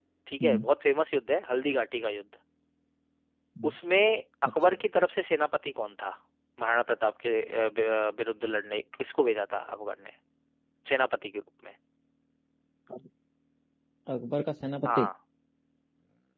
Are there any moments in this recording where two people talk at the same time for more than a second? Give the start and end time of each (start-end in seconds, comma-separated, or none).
none